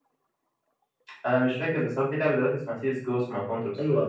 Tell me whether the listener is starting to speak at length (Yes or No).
Yes